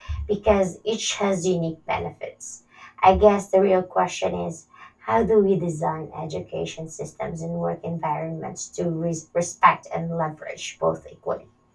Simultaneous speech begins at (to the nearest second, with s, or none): none